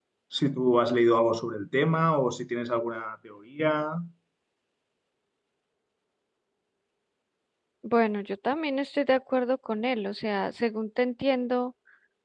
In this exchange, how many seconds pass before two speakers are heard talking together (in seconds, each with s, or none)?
none